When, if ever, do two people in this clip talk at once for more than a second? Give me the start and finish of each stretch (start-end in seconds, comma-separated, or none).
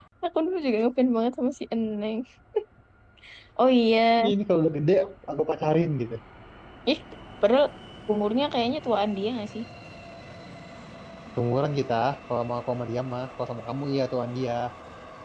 none